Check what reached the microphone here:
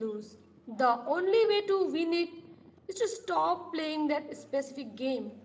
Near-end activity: none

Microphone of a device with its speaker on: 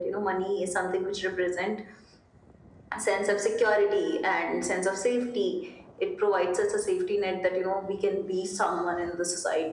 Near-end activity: none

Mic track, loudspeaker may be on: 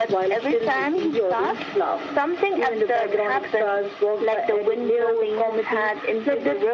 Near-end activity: none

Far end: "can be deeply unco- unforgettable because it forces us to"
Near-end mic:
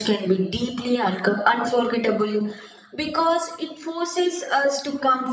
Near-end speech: none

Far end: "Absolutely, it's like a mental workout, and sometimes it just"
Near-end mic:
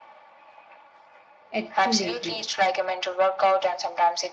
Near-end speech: present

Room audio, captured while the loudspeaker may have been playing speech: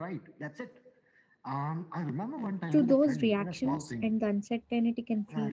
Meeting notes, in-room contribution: present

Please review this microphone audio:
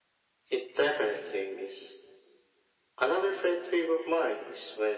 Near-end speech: none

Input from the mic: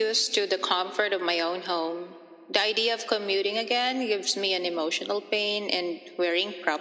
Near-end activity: none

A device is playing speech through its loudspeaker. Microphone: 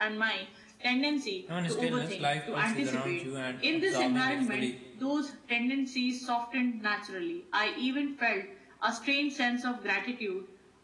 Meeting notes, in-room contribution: present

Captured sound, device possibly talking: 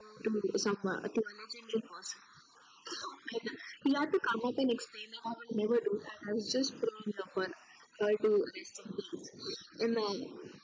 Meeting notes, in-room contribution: none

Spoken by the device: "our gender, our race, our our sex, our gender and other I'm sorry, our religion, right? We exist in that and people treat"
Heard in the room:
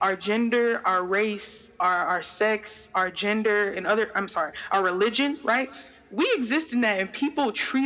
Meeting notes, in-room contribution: none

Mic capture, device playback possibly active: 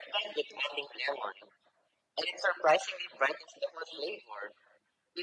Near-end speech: none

